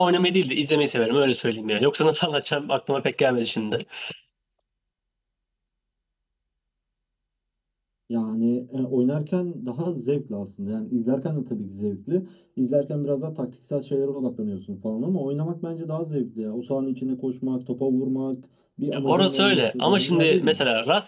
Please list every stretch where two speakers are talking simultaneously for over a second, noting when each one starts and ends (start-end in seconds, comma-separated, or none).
18.9-20.6